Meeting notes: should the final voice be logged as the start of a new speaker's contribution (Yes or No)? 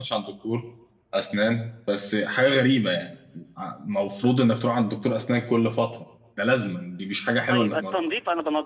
Yes